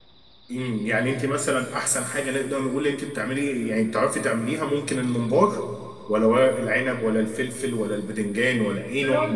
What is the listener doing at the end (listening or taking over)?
taking over